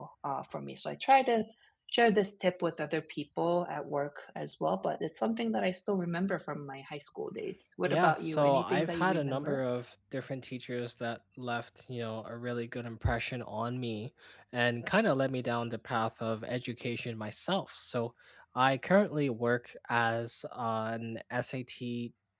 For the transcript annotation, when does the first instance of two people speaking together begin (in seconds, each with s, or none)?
7.8 s